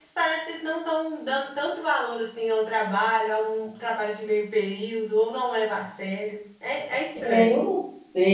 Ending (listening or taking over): taking over